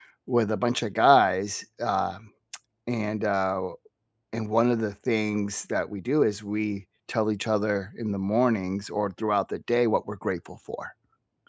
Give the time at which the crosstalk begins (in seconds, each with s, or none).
none